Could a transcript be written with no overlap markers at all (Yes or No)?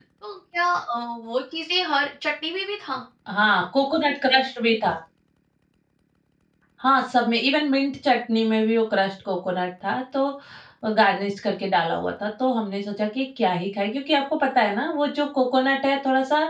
Yes